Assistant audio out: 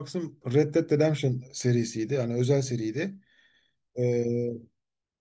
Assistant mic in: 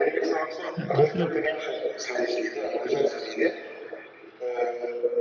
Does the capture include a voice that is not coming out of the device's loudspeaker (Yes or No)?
Yes